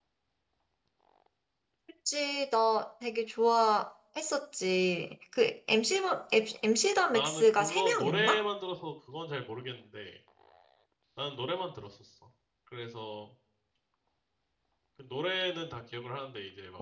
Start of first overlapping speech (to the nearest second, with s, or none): 7 s